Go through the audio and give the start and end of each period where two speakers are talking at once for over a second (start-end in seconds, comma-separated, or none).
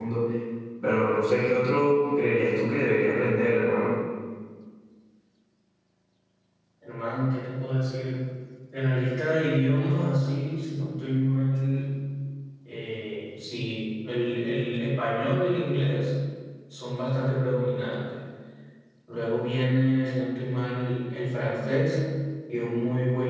none